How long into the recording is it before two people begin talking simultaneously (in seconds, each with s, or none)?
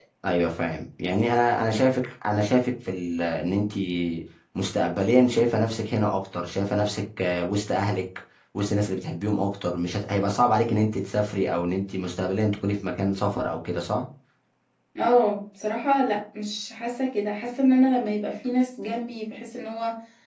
none